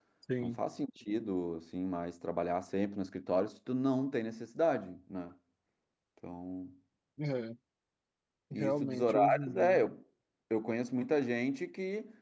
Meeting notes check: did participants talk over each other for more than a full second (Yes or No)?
Yes